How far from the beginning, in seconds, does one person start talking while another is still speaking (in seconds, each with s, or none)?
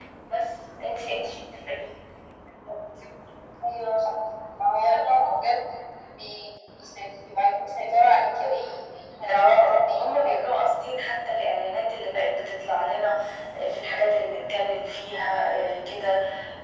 9.3 s